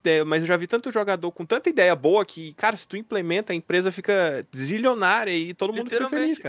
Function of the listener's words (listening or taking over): taking over